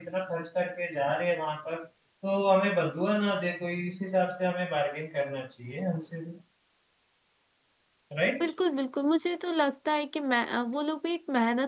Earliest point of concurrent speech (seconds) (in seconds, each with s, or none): none